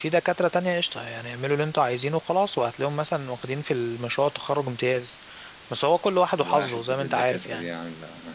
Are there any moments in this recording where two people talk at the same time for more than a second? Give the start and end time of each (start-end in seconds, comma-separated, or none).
6.4-7.7